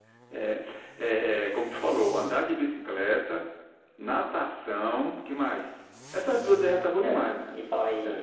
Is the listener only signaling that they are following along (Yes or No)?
No